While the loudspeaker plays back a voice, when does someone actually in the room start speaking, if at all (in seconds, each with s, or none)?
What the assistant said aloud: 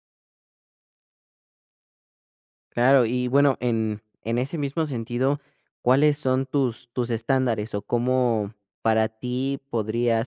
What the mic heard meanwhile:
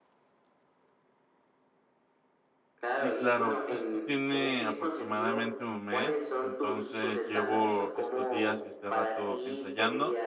3.0 s